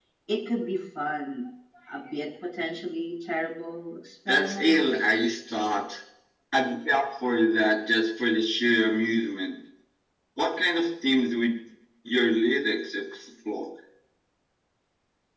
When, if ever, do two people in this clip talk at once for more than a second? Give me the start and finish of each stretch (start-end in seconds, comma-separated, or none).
none